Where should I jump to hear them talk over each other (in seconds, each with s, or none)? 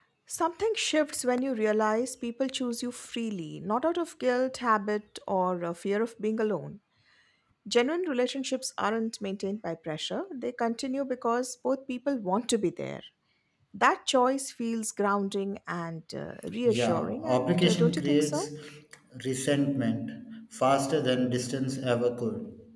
16.6 s